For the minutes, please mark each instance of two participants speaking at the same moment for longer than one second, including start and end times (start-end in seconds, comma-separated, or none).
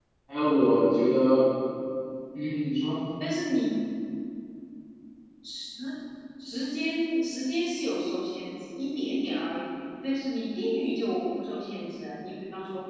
none